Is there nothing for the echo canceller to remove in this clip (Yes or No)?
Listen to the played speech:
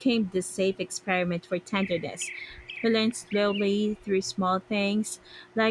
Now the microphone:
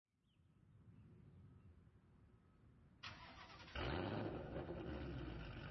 Yes